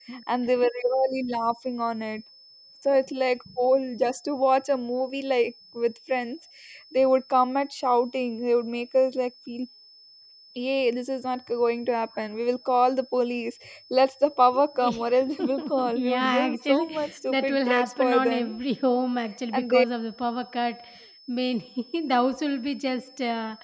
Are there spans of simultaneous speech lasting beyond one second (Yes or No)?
Yes